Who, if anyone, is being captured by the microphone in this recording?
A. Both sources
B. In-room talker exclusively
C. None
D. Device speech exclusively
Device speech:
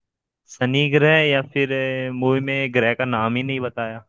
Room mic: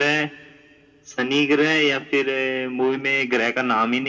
D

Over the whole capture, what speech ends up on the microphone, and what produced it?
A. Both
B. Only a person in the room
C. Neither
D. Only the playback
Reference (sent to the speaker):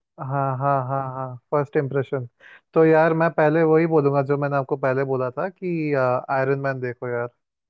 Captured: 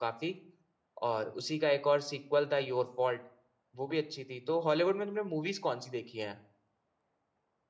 B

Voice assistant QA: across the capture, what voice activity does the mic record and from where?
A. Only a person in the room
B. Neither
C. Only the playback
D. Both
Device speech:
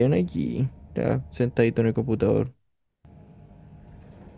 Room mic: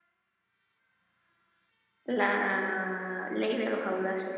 A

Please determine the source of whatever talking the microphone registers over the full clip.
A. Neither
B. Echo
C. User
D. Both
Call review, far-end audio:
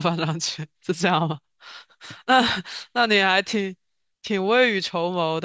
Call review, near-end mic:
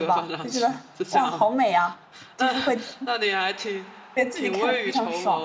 D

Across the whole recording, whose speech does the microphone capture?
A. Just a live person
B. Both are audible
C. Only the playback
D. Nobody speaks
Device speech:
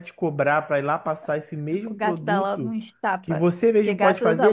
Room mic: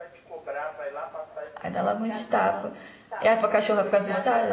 B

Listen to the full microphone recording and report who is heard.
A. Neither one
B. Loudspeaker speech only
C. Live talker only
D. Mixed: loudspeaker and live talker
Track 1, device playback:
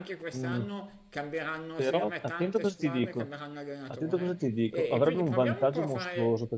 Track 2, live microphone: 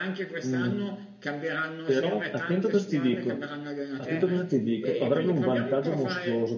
D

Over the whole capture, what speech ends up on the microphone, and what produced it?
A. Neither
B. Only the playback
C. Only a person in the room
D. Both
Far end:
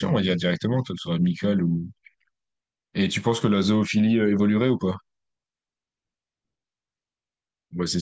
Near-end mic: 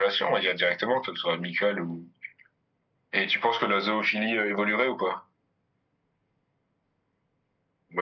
B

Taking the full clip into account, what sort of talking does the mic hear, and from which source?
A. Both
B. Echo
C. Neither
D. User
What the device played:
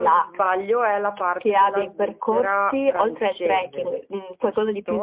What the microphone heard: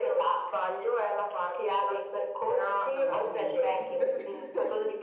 A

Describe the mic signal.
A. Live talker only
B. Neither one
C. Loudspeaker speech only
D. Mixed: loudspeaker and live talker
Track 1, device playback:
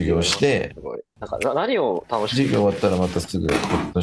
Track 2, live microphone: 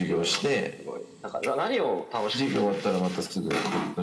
C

